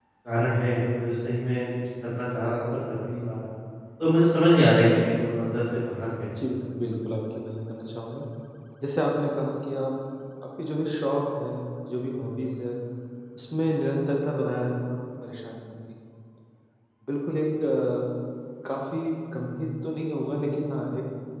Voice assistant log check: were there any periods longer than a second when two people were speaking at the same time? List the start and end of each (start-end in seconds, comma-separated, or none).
none